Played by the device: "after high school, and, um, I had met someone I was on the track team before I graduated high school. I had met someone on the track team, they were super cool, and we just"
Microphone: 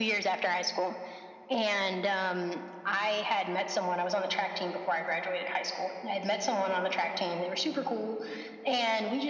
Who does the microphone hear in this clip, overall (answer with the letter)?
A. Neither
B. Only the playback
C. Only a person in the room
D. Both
B